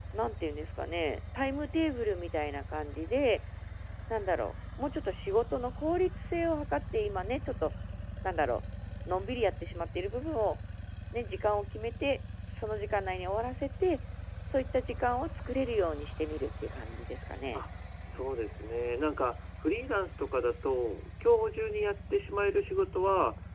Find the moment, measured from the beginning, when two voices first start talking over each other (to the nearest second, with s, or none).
none